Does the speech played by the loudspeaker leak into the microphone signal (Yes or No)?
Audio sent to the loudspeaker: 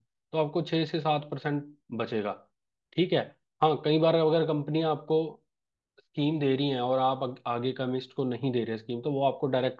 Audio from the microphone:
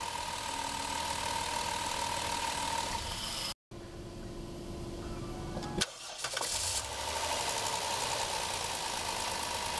No